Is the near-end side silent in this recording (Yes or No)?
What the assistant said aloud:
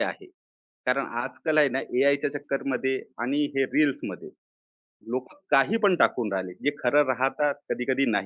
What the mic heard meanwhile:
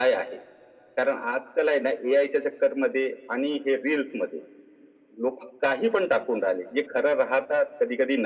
Yes